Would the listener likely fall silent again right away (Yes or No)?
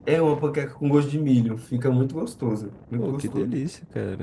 No